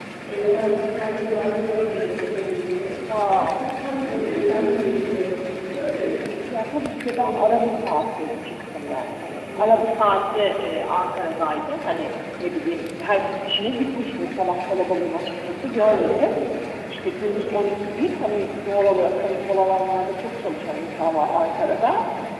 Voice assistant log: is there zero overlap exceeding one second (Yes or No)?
Yes